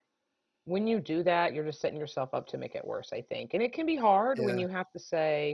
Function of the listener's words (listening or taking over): listening